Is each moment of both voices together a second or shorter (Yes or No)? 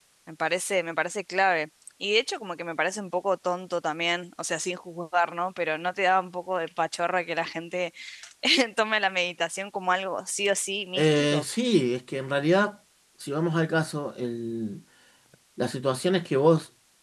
Yes